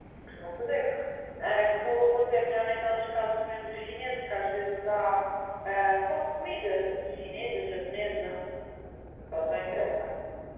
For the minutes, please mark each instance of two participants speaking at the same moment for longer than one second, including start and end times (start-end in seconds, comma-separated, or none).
none